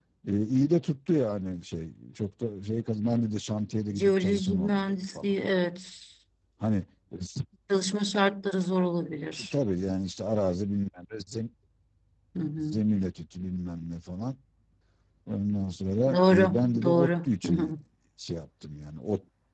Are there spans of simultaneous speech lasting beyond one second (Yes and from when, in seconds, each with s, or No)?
Yes, from 3.9 s